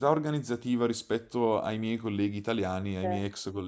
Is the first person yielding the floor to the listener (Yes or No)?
No